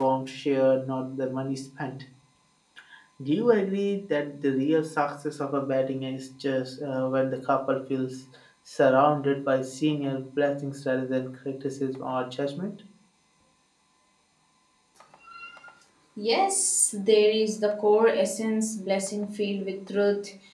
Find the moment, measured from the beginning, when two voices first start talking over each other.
none

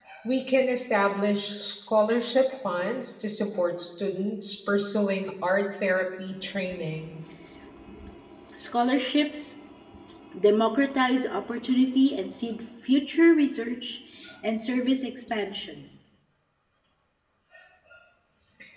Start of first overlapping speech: none

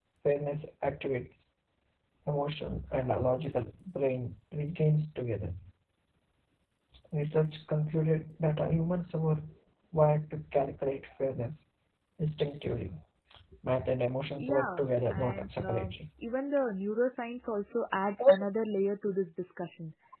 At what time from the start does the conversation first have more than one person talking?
14.4 s

